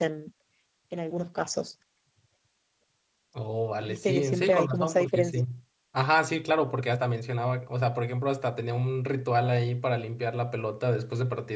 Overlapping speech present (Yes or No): Yes